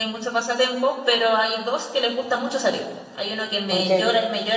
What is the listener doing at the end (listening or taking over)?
listening